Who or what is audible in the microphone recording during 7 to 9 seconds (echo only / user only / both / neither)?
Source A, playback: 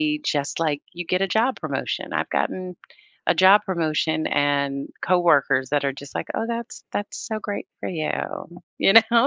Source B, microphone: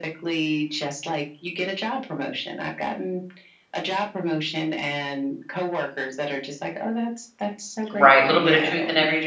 both